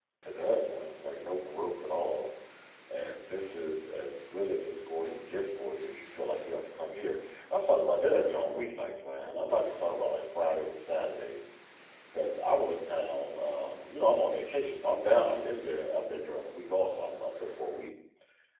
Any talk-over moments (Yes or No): No